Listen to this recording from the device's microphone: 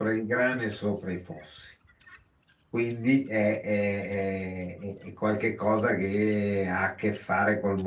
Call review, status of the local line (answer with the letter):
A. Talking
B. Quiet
A